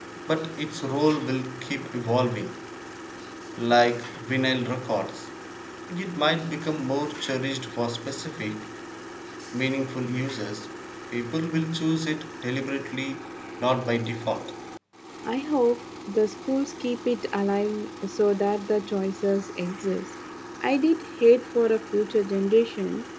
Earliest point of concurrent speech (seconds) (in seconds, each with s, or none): none